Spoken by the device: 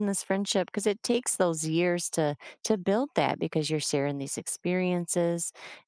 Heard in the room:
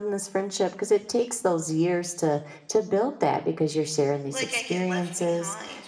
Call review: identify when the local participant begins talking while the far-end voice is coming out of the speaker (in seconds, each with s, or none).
4.3 s